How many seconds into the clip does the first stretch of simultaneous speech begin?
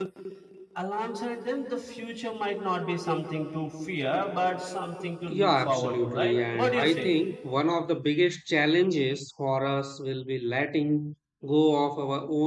5 s

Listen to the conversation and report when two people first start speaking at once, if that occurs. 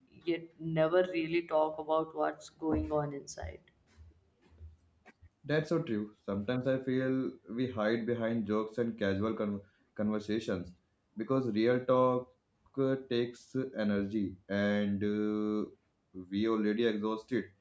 none

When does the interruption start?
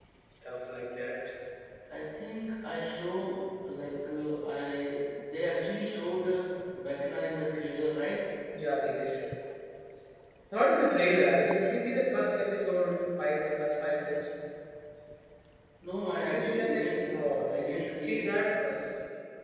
16 s

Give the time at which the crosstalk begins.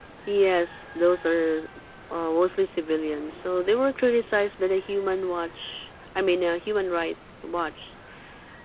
none

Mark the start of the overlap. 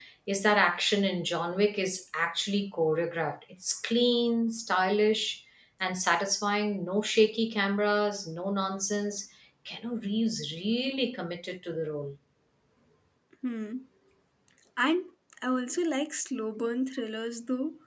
none

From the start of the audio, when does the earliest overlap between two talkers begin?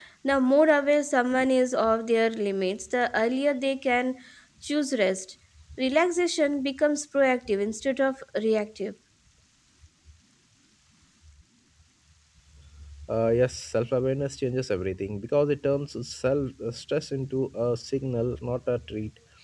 none

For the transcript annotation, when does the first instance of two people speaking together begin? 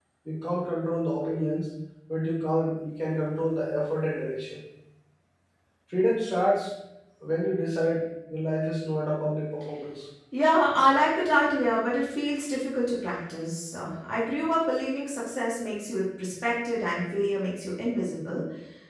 none

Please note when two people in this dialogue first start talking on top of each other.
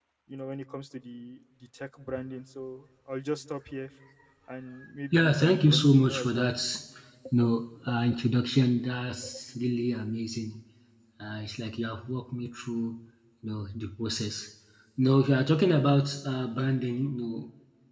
5 s

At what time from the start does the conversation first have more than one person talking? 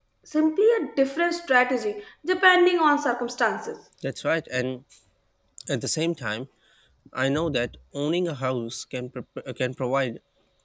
none

